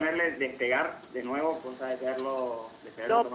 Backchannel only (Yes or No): No